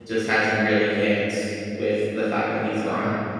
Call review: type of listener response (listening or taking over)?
taking over